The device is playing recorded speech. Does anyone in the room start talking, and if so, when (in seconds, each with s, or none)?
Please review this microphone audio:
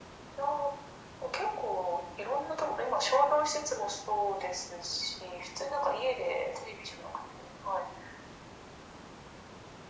none